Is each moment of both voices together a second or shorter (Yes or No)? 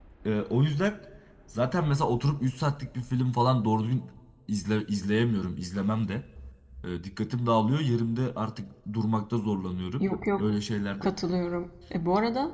Yes